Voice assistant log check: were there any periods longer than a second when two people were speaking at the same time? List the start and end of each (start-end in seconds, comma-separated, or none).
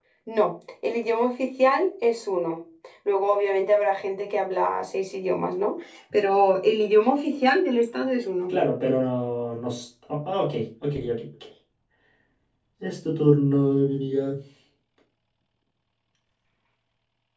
none